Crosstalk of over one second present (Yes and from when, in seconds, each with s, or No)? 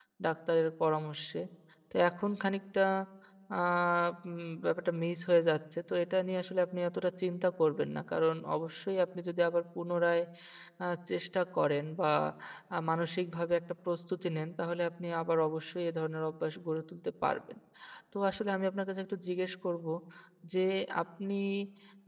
No